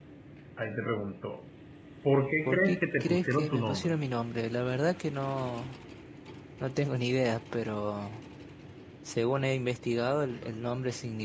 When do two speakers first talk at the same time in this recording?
2 s

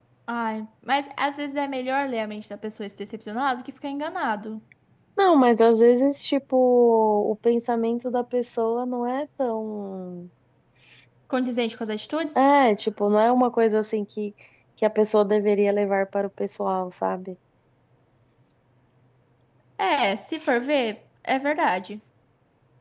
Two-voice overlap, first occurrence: none

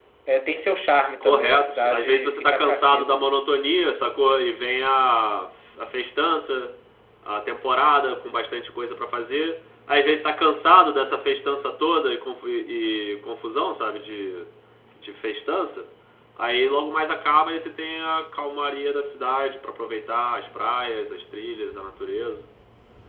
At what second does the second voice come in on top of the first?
1 s

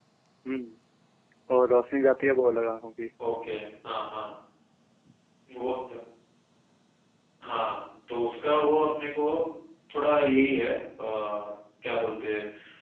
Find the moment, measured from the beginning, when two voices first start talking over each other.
none

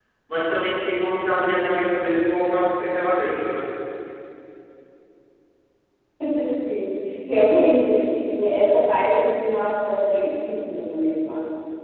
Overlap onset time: none

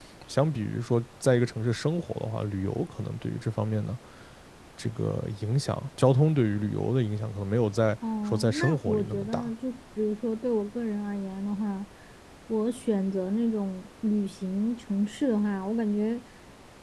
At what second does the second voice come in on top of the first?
8 s

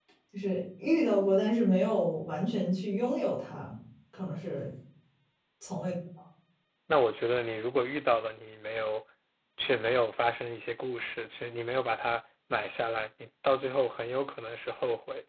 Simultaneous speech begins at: none

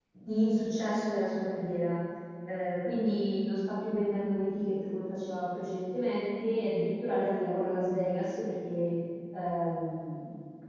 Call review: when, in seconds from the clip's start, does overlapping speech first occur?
none

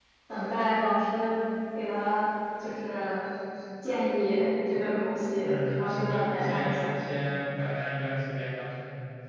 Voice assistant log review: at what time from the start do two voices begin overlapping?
5 s

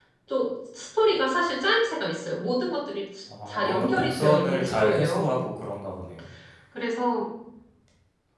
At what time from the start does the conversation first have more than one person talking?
3 s

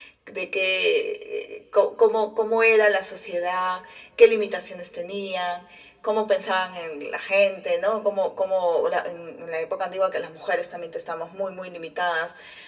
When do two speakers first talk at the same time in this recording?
none

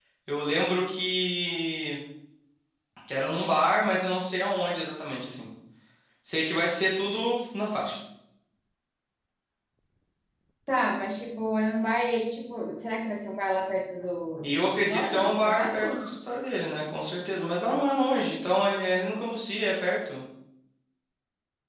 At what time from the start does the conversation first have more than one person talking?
14 s

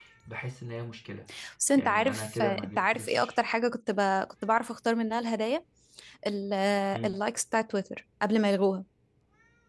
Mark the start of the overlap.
2 s

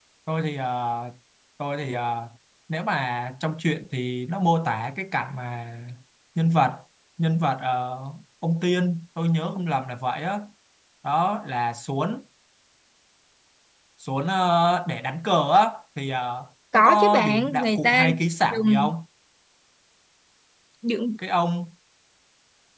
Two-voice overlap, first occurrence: 17 s

